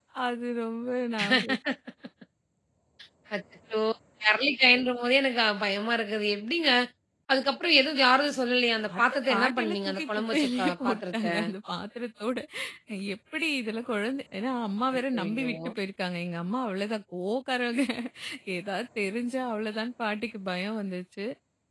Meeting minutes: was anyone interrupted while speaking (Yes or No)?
Yes